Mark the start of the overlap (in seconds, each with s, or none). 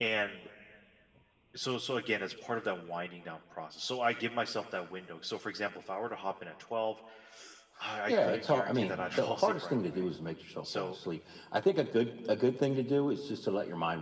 8.1 s